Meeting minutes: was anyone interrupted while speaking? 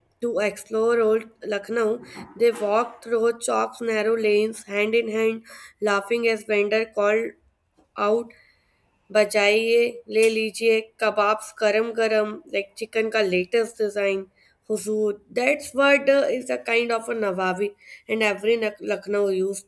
No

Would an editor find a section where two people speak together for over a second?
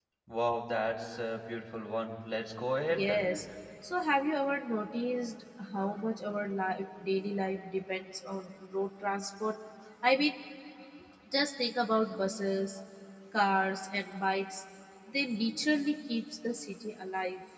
No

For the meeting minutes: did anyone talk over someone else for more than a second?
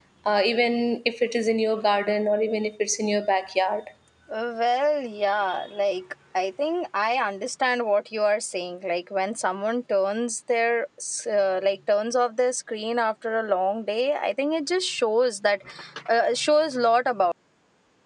No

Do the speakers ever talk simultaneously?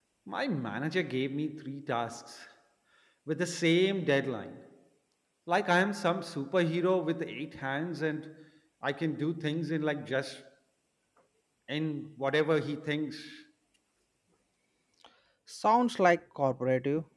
No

